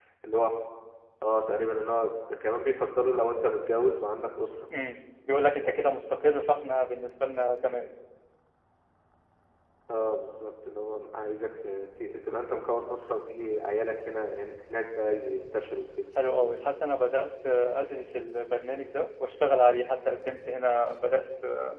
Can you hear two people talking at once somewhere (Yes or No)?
No